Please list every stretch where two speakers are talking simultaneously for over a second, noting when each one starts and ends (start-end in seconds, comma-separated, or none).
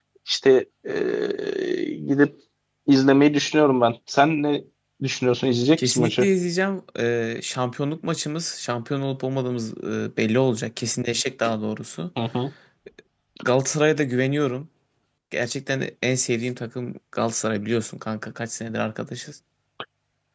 none